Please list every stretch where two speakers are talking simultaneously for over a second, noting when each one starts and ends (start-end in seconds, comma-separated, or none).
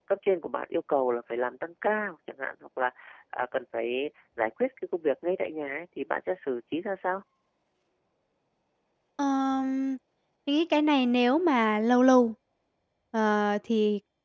none